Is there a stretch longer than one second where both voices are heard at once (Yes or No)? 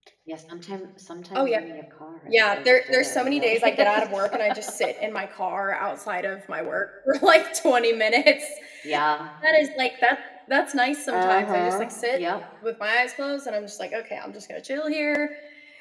Yes